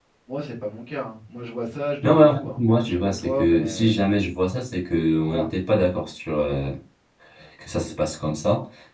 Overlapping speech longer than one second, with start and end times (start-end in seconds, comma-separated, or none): 2.0-4.0